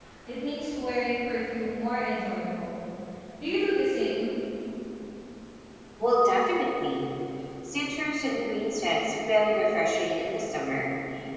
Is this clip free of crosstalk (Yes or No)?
Yes